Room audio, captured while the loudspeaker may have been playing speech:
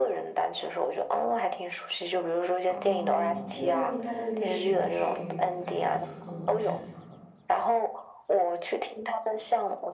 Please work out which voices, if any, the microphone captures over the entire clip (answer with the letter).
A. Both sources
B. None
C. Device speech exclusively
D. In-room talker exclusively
A